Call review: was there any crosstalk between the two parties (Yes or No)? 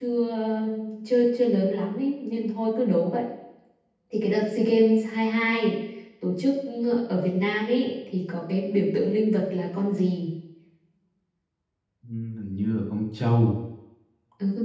No